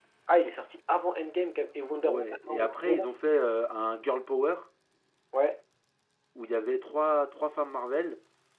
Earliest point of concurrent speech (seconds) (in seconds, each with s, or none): 2.0 s